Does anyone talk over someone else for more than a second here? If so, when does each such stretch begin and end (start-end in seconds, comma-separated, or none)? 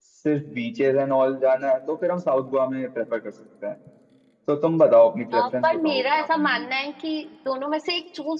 5.3-6.7